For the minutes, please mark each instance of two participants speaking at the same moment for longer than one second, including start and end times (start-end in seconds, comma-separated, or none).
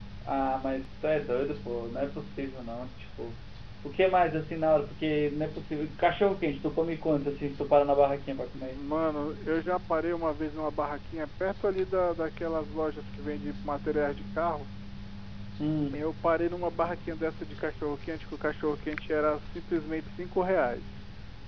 none